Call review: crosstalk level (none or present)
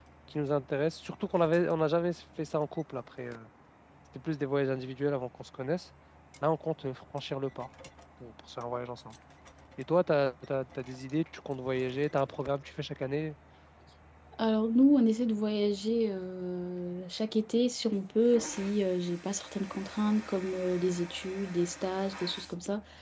none